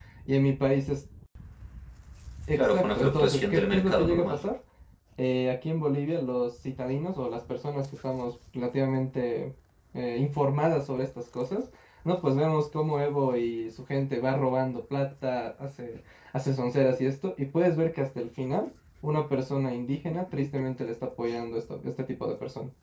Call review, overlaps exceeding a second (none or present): present